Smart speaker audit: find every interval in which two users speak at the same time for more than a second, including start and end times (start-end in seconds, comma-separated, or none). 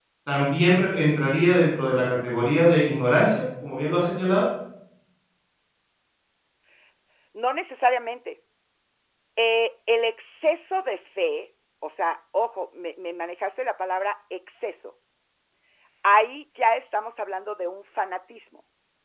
none